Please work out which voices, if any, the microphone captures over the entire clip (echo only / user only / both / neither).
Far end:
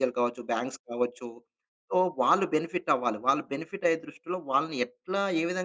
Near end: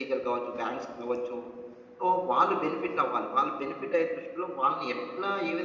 echo only